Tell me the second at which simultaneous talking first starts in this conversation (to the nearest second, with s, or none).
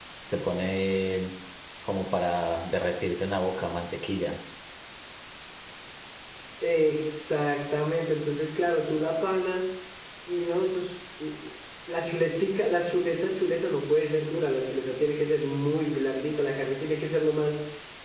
none